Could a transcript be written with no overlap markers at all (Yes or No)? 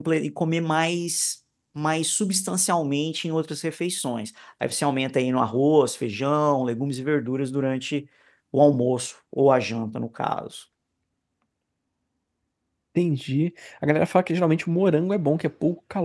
Yes